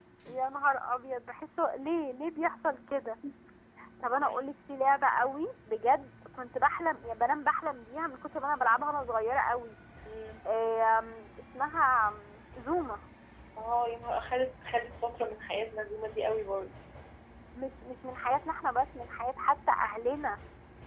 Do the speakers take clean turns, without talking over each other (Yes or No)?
Yes